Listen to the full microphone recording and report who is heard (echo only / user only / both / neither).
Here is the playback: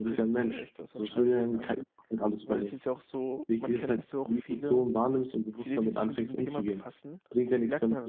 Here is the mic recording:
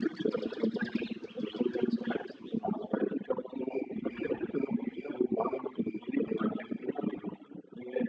echo only